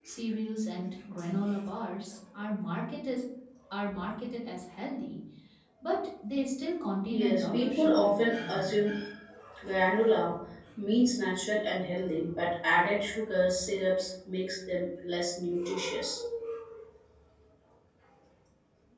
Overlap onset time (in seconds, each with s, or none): 7.1 s